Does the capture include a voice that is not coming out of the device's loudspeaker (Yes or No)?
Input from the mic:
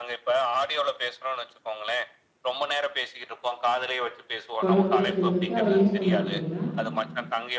Yes